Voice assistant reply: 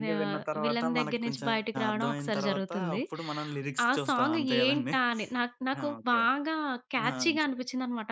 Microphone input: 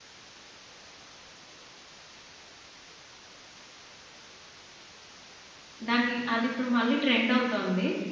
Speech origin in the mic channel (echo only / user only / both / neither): user only